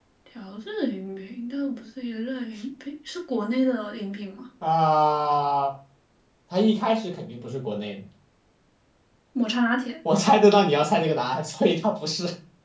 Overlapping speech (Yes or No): No